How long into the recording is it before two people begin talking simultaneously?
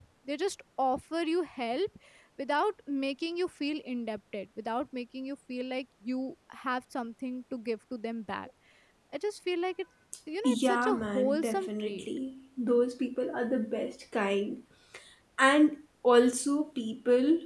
10.4 s

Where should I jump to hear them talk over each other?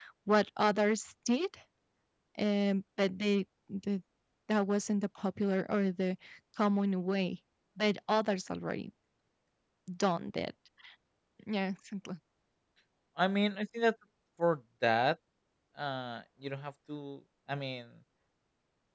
none

